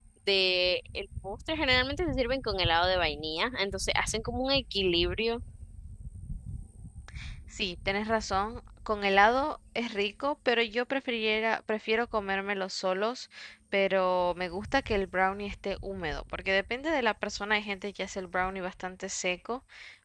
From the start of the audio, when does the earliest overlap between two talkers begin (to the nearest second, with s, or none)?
none